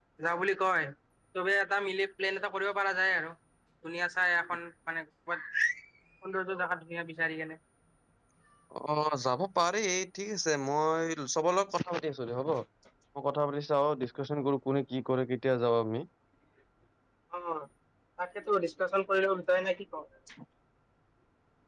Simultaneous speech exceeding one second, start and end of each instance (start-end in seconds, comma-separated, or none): none